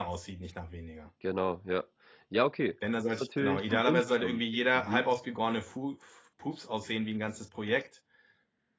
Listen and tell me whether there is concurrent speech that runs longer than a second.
Yes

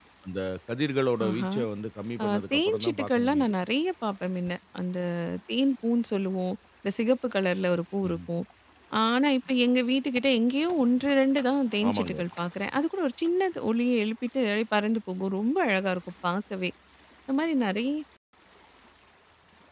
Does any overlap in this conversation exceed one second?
Yes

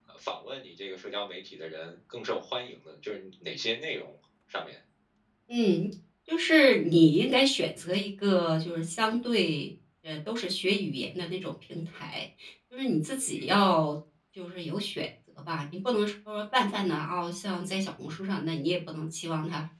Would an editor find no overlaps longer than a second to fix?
Yes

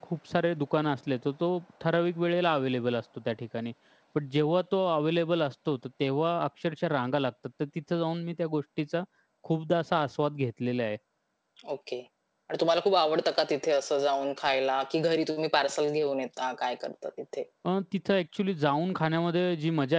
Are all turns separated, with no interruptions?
Yes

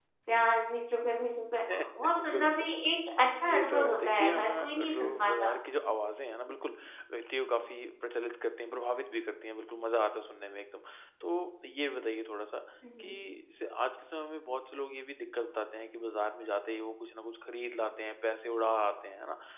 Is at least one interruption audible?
Yes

